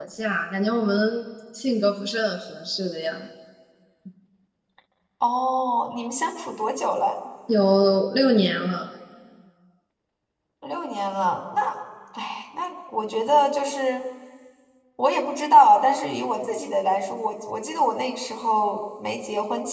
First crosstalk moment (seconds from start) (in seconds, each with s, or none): none